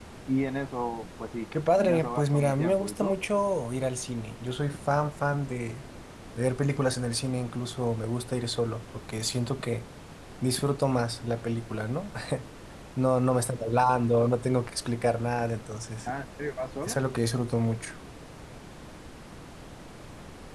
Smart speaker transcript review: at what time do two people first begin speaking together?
2 s

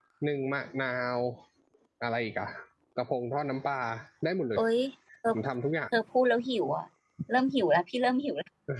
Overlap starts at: none

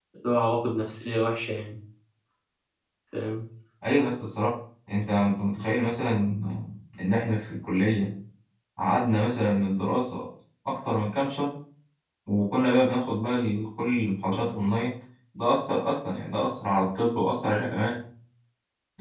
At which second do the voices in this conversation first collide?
none

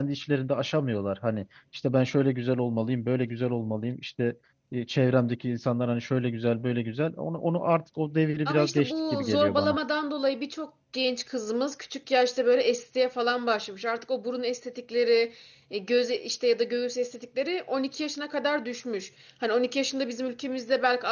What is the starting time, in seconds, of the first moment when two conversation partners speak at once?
8 s

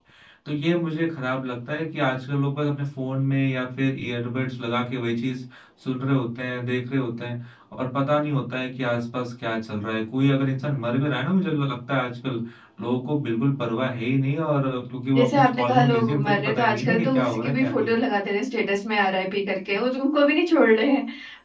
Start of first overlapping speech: 15 s

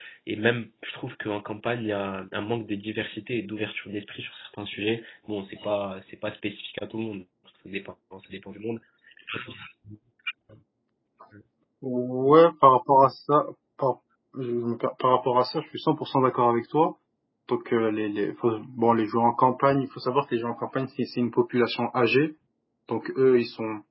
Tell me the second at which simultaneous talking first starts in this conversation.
none

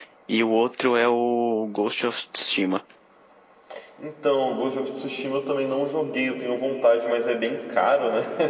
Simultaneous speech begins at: none

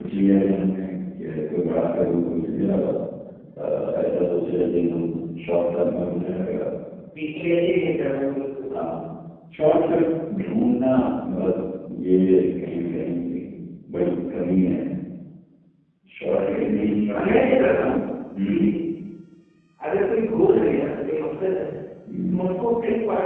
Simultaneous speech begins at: 16 s

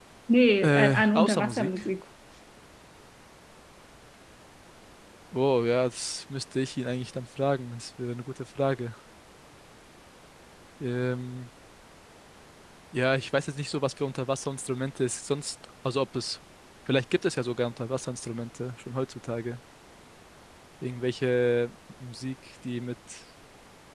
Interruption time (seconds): 1 s

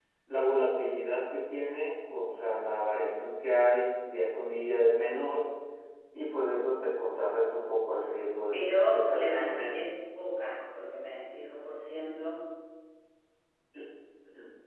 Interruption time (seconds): 9 s

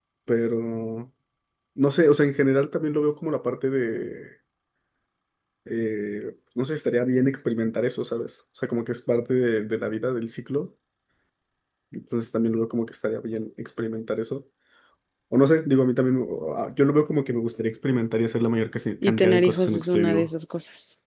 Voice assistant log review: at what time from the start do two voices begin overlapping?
19 s

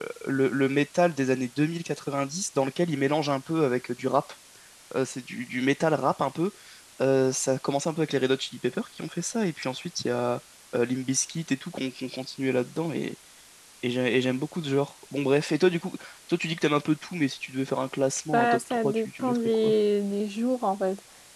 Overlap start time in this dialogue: 18 s

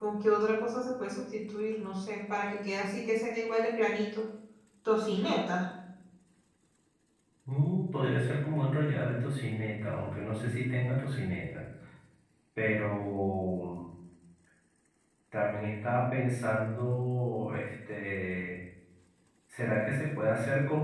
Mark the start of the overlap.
none

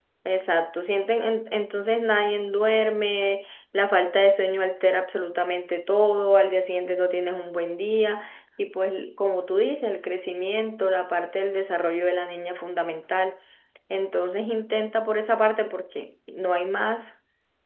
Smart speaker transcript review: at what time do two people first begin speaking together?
none

